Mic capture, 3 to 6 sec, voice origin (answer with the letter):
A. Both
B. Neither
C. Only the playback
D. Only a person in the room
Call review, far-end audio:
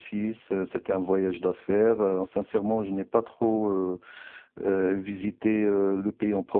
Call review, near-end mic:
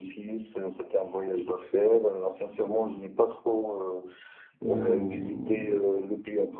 A